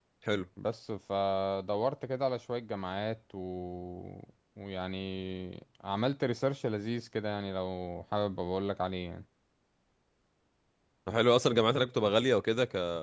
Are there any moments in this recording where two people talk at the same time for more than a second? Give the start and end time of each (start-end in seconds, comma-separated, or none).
none